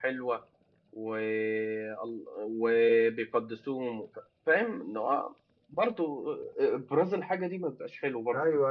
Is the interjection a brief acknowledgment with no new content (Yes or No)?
No